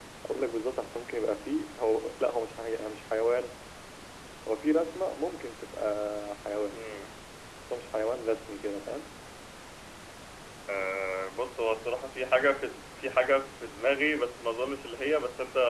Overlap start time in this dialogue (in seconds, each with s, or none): none